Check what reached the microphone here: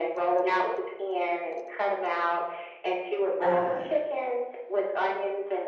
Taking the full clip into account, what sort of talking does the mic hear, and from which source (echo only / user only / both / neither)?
both